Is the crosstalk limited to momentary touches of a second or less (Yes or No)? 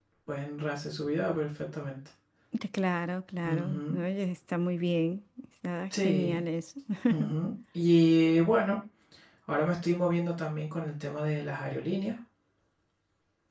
Yes